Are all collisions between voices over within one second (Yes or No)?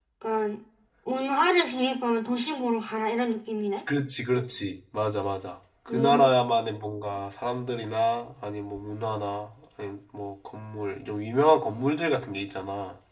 Yes